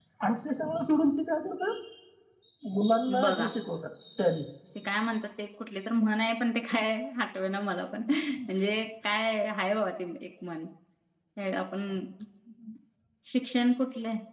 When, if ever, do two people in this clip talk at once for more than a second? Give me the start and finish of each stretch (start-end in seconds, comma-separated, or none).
none